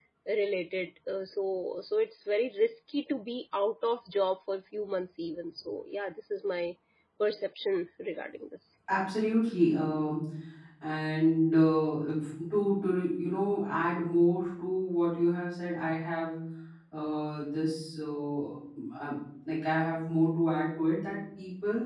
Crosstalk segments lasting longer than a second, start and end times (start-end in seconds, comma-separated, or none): none